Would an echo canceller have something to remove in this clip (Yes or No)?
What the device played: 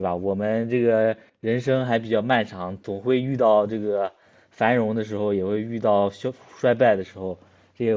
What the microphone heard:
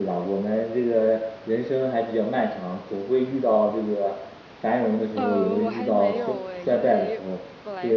Yes